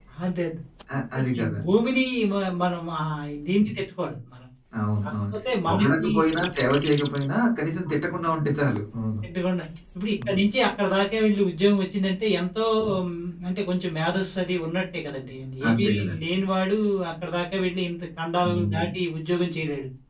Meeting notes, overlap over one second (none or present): none